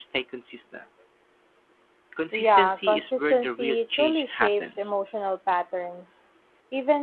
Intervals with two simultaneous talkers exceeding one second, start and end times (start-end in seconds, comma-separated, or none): 2.3-4.9